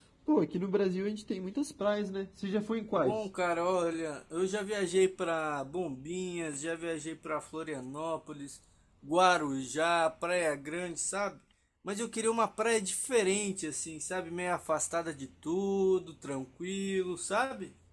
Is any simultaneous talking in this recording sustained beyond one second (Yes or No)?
No